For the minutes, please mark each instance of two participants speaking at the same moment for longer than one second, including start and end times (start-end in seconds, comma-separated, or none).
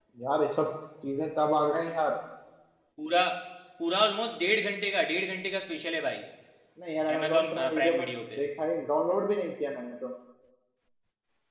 7.2-8.4